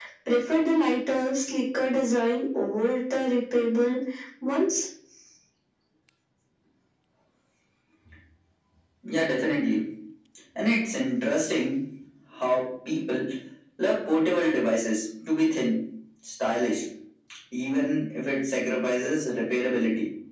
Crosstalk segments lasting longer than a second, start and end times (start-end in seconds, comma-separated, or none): none